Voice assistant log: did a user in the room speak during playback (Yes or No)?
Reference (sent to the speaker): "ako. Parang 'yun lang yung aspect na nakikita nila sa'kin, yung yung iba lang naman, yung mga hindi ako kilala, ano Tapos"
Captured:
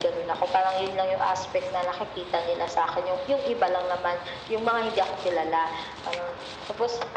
No